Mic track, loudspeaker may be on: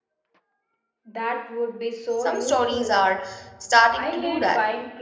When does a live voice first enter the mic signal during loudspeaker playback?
2.2 s

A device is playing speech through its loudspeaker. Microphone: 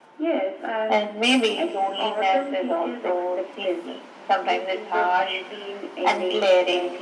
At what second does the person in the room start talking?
none

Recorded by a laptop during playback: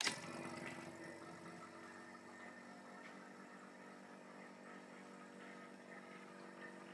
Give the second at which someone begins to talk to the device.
none

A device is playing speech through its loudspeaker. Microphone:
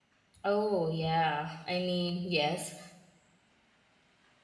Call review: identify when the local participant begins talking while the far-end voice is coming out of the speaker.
0.4 s

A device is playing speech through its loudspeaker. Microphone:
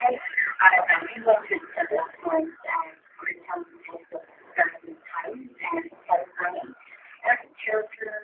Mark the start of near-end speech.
none

